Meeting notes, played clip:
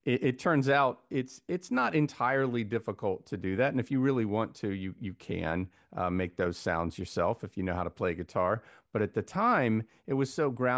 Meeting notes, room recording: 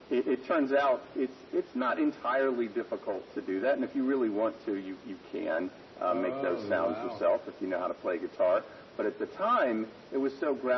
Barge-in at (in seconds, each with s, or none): 6.1 s